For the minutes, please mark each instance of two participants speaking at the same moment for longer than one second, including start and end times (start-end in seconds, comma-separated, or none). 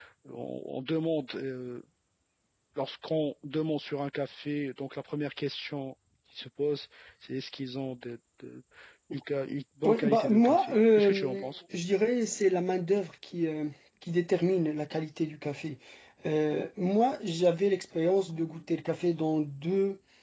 9.8-11.5